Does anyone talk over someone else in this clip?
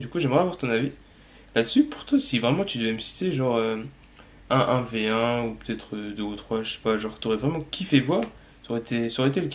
No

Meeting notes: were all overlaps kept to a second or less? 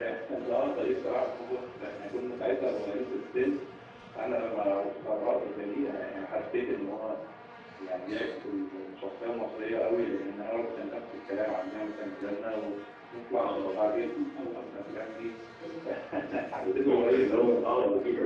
No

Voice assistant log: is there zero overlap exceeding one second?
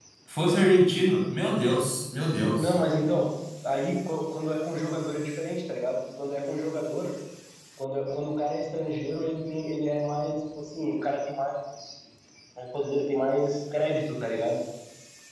Yes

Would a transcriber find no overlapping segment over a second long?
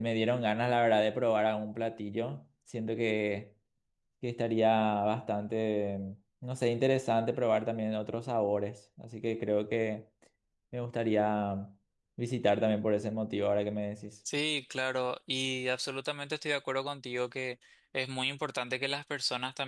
Yes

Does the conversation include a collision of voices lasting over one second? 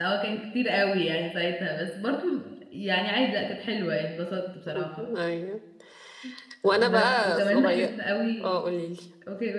Yes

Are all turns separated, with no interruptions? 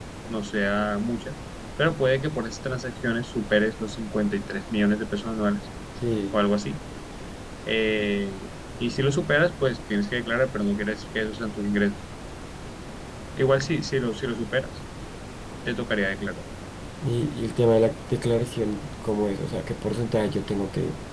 Yes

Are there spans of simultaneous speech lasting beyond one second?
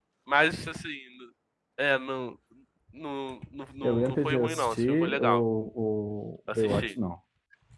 Yes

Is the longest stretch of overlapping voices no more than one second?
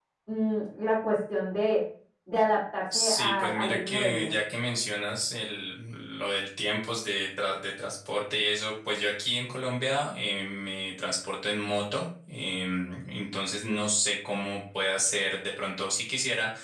No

